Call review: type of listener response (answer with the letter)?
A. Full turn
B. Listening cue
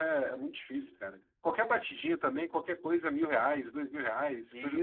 A